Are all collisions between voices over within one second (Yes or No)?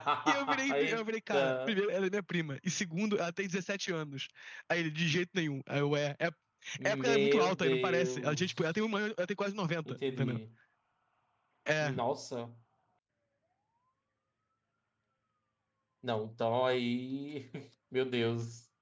No